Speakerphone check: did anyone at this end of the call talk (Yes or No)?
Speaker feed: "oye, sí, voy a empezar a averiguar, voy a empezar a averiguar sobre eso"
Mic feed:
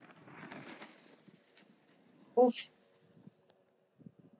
Yes